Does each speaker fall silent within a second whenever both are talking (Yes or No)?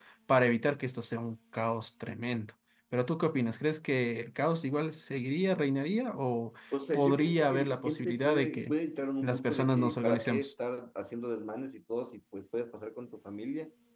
No